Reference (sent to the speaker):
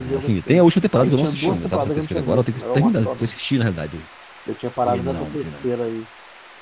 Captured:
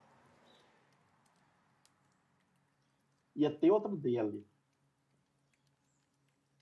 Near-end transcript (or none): ia ter outro dele.